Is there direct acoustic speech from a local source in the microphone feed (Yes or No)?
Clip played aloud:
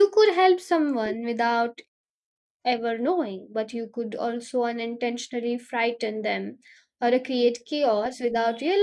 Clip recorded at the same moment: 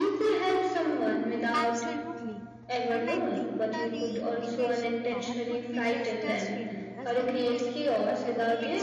Yes